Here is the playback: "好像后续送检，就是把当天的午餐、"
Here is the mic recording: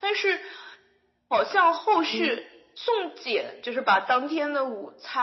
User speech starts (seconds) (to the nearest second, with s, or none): 2 s